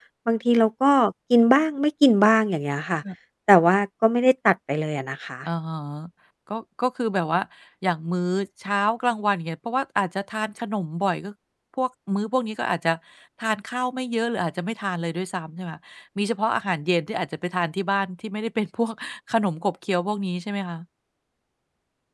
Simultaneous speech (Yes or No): No